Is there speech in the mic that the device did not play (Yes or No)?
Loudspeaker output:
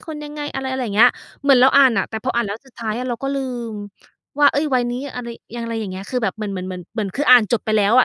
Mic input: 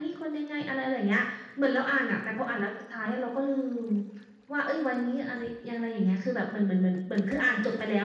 No